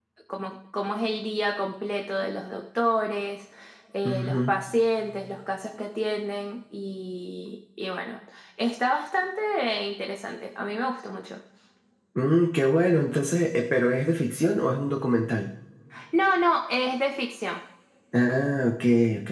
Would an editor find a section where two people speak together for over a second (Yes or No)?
No